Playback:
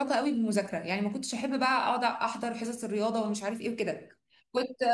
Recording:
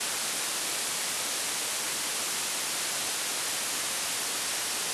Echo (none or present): none